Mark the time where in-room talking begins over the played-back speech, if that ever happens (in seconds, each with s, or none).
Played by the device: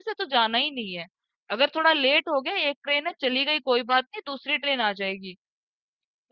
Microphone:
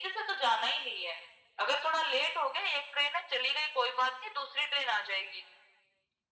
none